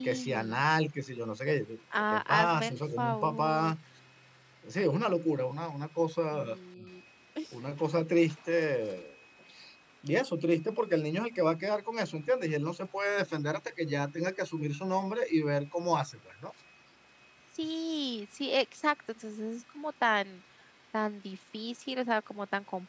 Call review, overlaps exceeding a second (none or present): present